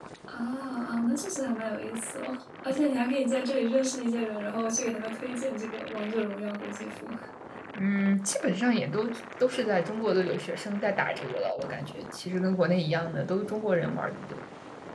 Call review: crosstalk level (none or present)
none